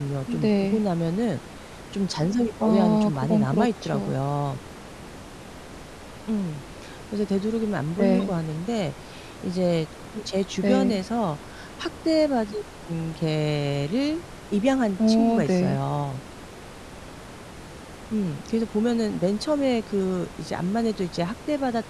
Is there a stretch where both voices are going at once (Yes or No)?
Yes